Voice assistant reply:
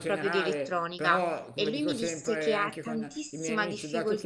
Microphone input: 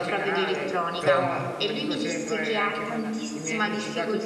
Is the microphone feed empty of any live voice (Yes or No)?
No